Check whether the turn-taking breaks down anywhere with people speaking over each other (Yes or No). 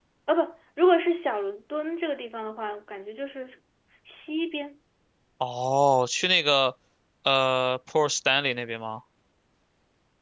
No